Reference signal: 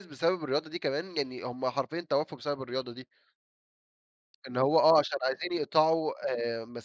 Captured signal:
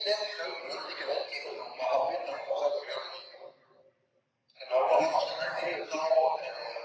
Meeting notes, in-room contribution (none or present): none